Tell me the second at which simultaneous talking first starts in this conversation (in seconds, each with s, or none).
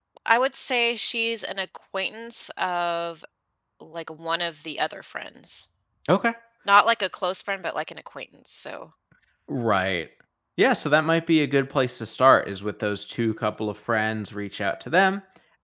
none